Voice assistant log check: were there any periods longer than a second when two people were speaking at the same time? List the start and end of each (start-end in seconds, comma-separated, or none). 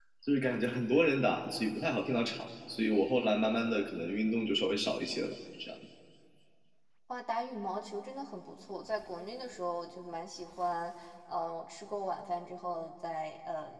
none